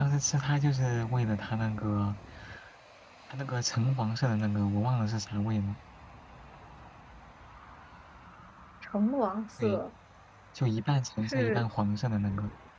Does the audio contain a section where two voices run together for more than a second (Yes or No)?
No